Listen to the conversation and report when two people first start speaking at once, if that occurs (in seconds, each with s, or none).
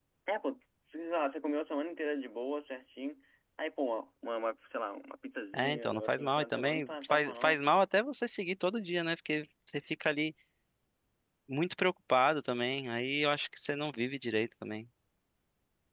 5.5 s